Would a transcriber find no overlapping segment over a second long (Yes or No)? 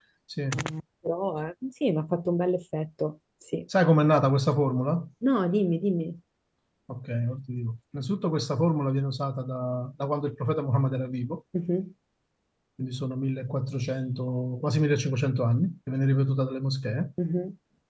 Yes